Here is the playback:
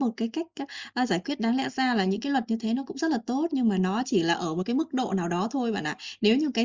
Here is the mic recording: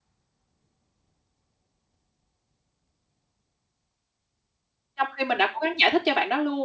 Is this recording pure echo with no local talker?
No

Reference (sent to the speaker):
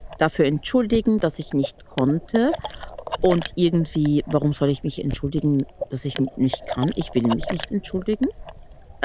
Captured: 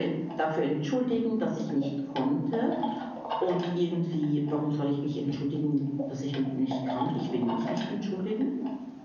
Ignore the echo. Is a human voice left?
No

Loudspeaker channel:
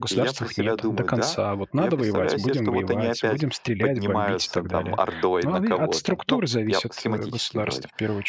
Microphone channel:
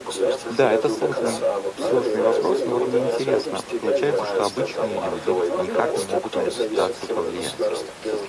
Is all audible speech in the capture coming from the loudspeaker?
No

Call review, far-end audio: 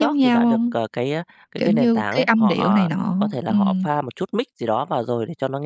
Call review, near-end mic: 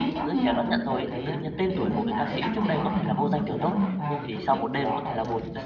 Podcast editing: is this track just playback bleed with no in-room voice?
No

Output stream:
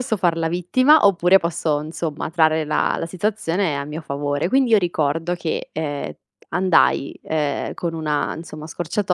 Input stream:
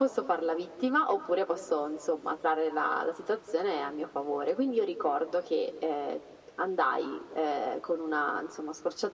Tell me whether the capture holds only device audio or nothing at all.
Yes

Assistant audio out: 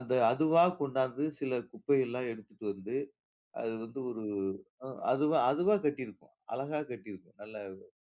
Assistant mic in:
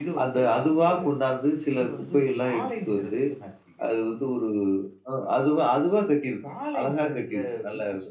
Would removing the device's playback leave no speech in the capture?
No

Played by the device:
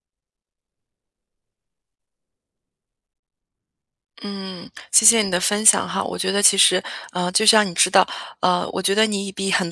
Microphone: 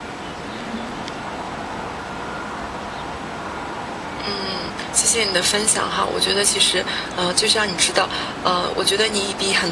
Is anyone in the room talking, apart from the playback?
No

